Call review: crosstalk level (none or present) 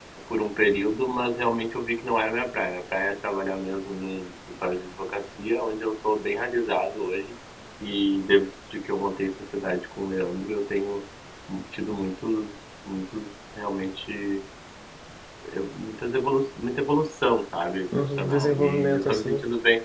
present